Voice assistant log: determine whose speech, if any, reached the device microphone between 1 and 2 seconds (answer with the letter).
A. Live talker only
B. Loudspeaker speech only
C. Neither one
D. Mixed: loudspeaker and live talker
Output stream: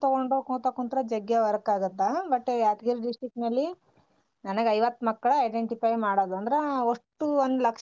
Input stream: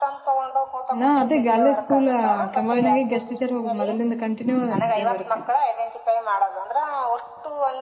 D